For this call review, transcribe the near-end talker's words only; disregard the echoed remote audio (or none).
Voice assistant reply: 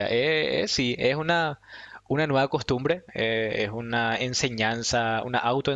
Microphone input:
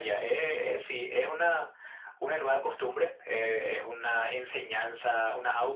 none